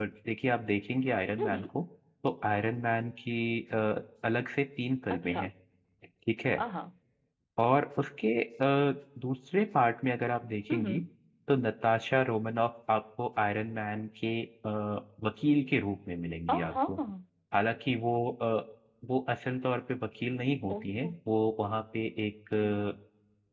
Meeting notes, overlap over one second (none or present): none